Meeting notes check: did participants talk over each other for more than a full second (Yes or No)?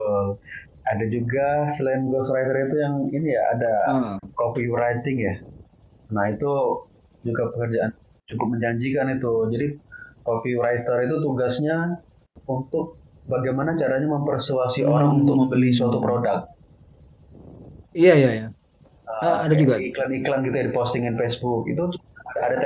Yes